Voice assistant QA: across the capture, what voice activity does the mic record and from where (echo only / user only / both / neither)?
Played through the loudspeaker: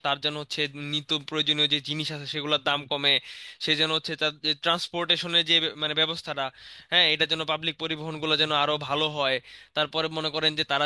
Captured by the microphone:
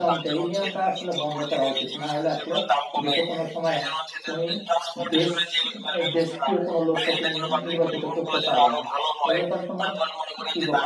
both